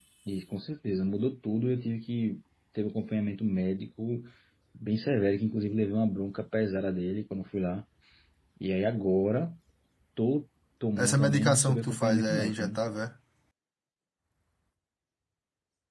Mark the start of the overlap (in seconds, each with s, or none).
11.0 s